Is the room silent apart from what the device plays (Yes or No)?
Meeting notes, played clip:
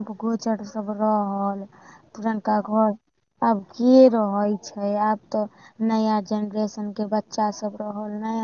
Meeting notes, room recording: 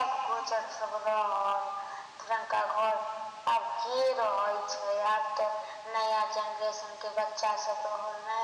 Yes